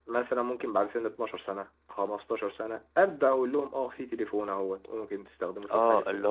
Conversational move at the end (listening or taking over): taking over